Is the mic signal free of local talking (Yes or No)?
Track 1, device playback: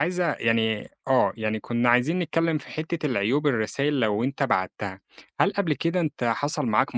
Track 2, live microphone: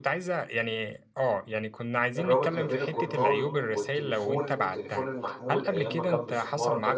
No